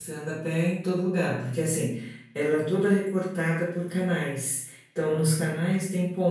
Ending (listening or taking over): listening